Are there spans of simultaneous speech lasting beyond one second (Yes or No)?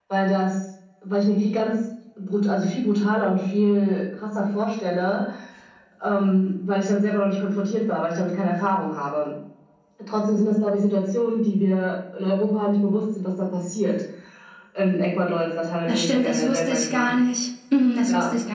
Yes